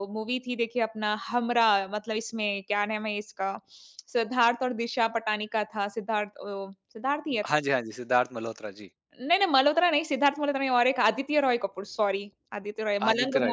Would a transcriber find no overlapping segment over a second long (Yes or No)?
Yes